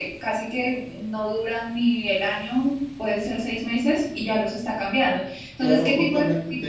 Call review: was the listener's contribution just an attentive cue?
No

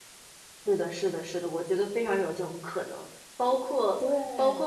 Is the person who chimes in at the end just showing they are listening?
Yes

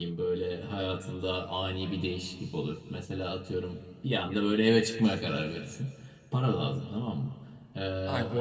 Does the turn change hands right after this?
No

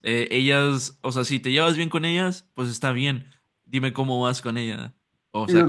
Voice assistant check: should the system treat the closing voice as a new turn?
Yes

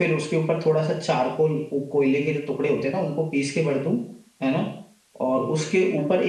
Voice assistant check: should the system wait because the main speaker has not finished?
Yes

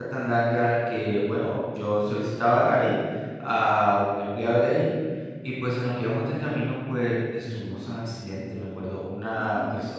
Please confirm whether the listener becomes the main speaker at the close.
No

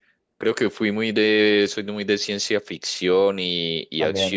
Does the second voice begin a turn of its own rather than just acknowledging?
No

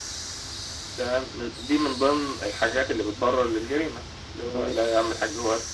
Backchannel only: Yes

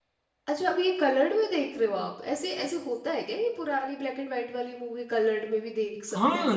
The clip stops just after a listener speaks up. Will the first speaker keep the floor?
No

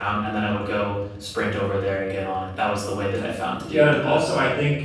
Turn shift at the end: Yes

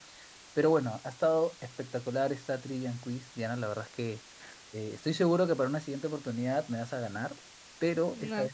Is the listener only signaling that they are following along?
No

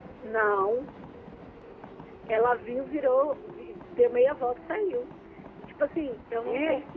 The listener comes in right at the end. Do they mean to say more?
No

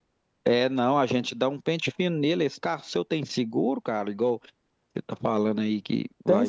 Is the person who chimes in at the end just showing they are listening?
No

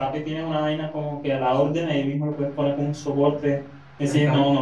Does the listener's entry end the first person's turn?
No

